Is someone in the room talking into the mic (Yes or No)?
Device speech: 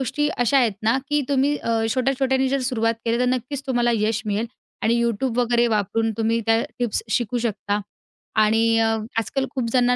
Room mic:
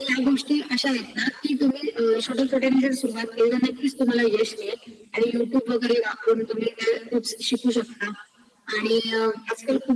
No